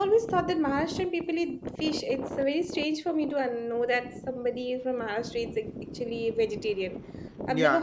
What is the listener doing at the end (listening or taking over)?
taking over